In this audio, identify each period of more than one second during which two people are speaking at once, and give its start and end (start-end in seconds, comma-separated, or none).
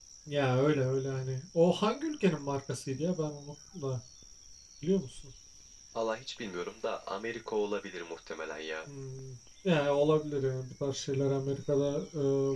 none